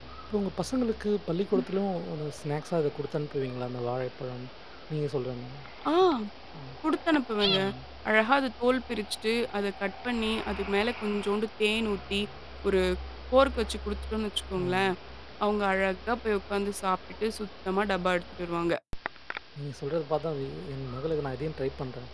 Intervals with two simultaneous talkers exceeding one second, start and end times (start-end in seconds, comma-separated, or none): none